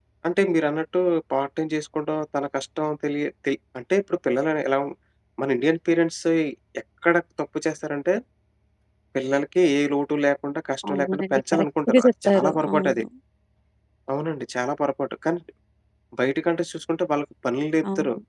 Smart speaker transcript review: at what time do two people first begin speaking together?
10.9 s

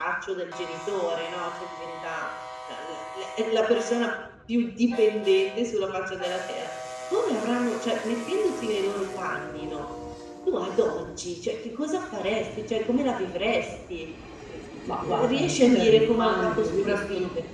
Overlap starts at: 14.9 s

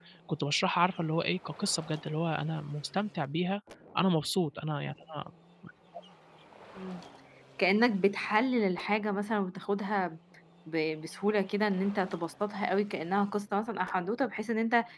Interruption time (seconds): none

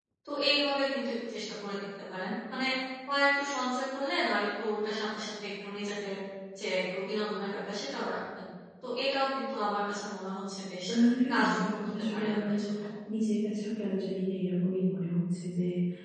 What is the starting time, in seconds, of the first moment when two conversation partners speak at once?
11.3 s

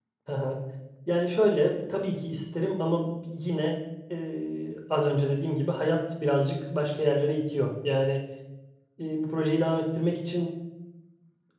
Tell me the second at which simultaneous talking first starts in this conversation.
none

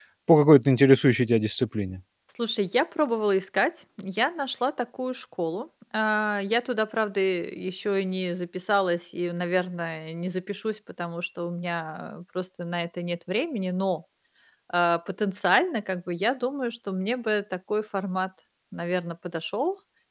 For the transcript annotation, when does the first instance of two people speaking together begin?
none

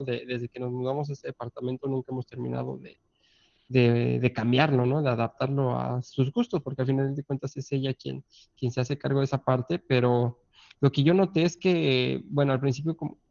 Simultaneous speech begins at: none

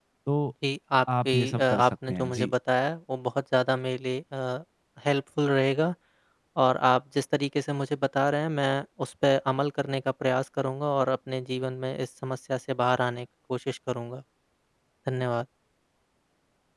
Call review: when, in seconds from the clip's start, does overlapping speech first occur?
1.2 s

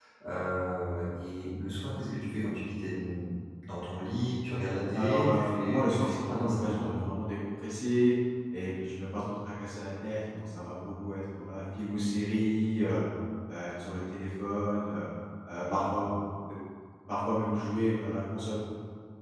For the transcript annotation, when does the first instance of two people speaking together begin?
4.9 s

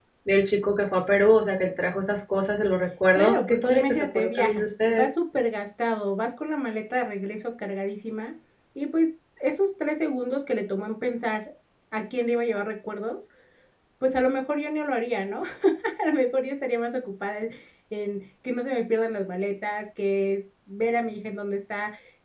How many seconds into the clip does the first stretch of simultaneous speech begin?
3.1 s

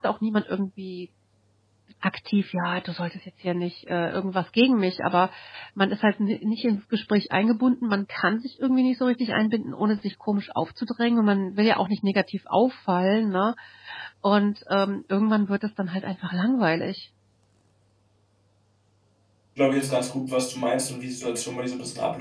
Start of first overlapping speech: none

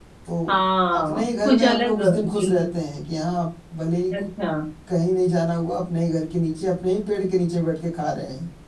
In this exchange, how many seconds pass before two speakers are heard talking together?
0.9 s

